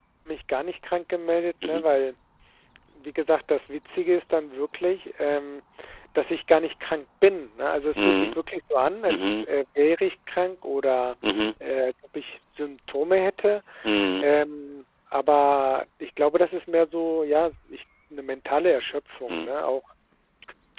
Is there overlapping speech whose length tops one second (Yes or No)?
No